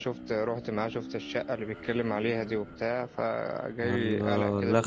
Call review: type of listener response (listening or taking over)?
taking over